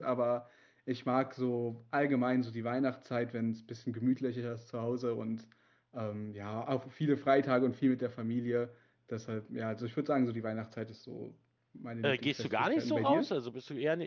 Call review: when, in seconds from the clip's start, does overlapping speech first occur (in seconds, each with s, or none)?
12.0 s